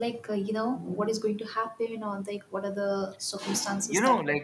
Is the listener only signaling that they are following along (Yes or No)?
No